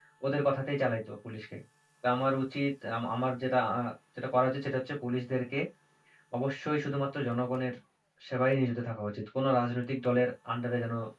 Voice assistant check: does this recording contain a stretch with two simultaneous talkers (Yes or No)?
No